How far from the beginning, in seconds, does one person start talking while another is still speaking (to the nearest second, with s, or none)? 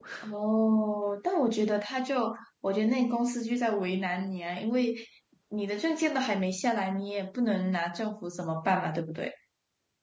none